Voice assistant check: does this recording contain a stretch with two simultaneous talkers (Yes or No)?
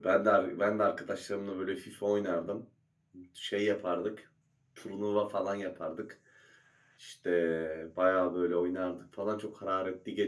No